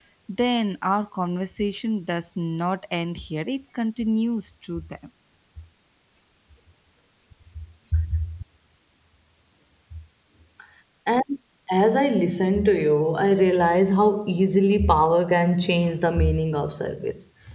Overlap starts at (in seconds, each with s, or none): none